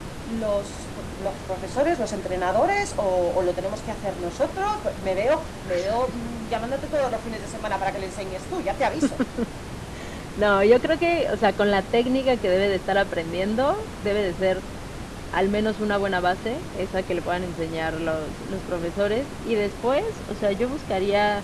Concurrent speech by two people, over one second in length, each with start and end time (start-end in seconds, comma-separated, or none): none